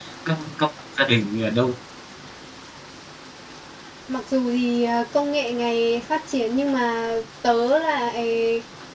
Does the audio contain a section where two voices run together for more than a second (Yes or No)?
No